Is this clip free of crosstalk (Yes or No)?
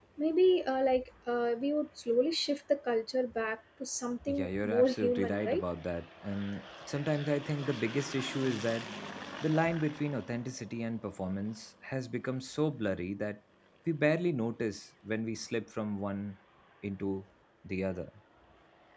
No